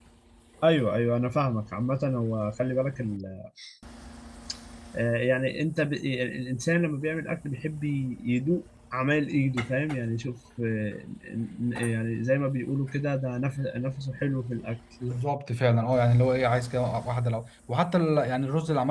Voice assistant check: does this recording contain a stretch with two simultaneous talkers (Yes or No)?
No